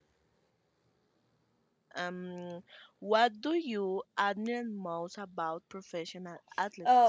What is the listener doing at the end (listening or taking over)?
taking over